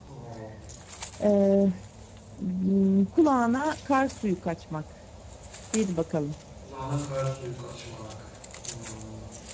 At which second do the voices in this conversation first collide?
none

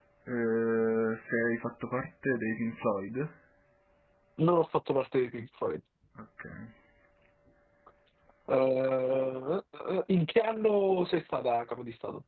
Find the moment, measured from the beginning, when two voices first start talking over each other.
none

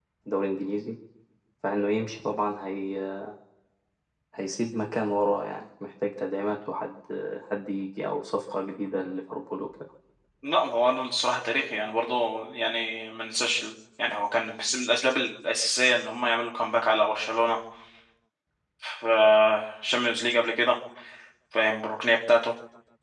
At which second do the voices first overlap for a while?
none

